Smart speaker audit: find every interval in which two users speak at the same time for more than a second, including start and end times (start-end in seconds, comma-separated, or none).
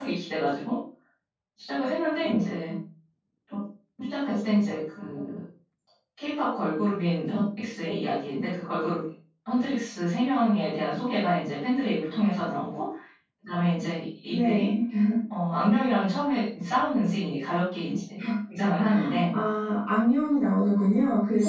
none